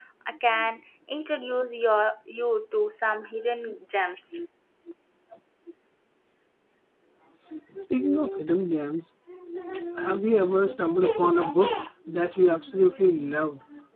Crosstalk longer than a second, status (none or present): none